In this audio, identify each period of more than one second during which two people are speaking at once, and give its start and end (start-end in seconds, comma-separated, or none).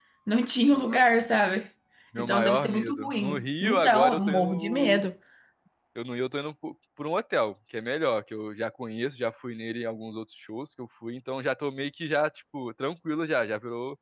2.2-5.0